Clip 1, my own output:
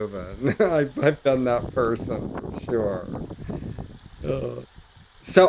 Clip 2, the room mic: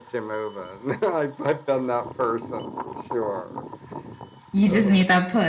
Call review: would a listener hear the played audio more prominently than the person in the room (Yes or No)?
No